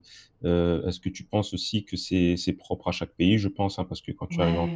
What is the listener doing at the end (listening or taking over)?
listening